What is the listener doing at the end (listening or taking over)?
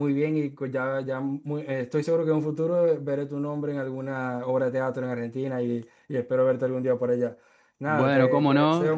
taking over